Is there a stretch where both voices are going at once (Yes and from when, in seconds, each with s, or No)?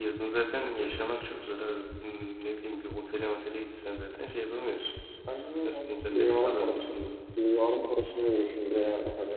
Yes, from 5.6 s